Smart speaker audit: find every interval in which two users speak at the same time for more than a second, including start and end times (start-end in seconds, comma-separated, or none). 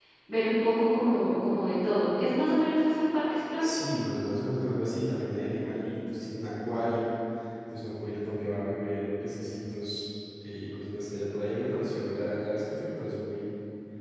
none